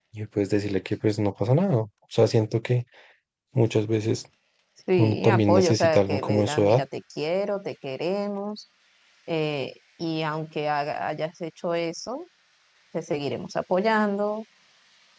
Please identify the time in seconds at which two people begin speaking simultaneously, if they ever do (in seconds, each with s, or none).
5.0 s